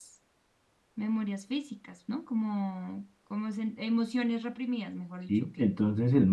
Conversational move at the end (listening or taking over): taking over